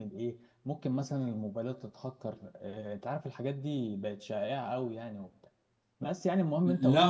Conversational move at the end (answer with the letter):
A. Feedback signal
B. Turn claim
B